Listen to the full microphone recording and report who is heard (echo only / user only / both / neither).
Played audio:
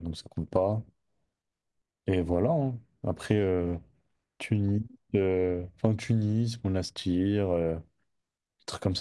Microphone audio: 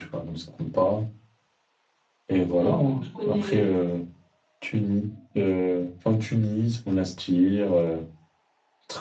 both